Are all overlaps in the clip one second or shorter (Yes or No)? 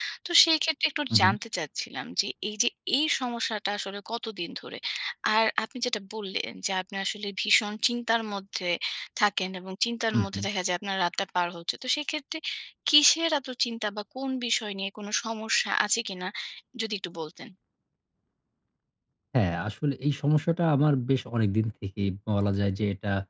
Yes